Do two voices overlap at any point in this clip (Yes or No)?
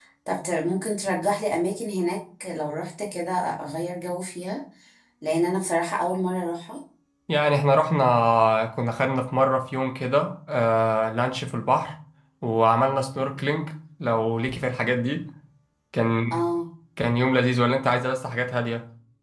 No